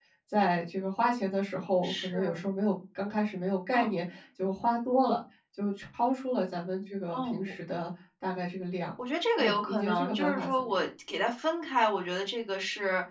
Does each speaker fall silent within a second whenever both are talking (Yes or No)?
No